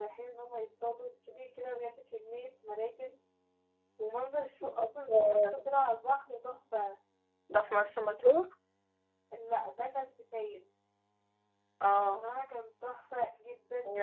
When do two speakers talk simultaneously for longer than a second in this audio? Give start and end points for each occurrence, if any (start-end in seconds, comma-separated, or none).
none